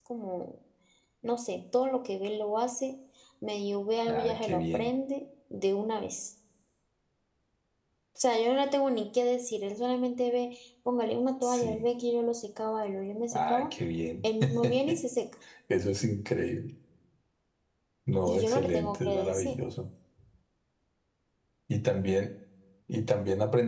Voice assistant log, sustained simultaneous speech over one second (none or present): present